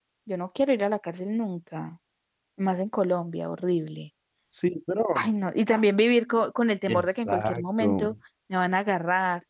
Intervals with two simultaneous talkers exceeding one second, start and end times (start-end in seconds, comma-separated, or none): 6.9-8.1